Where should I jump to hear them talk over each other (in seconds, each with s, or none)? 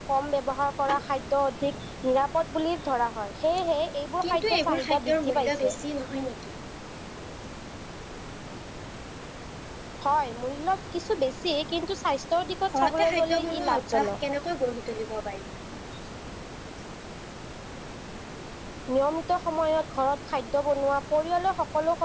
4.2 s